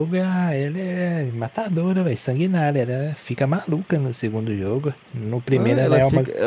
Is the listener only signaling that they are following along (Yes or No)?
No